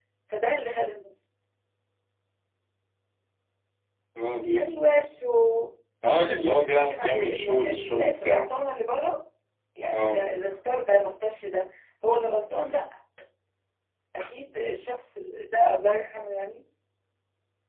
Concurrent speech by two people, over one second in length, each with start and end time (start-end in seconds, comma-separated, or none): 6.2-8.5